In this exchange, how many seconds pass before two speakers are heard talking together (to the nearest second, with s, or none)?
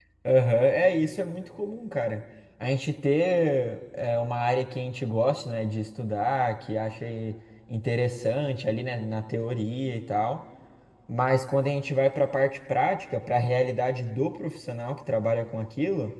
none